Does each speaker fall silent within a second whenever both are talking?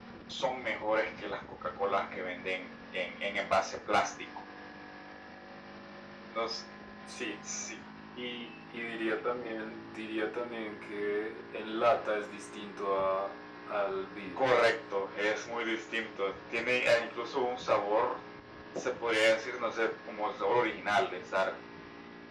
Yes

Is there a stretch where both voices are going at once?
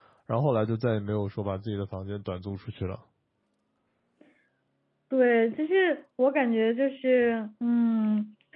No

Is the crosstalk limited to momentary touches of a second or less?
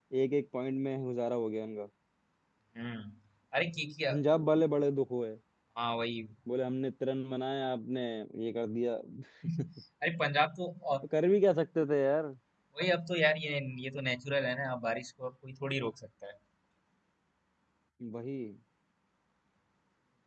Yes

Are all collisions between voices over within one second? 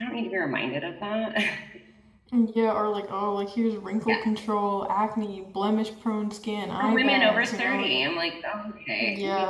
No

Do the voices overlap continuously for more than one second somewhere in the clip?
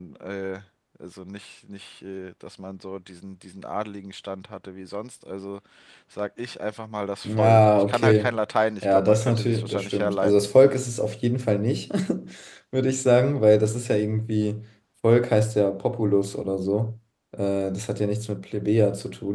Yes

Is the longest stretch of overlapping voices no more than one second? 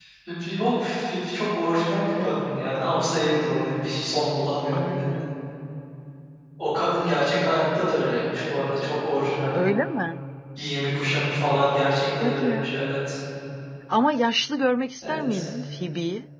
Yes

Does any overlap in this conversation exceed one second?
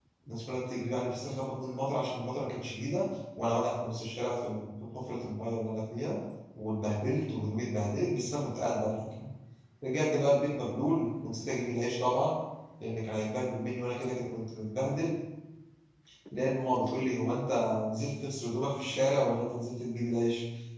No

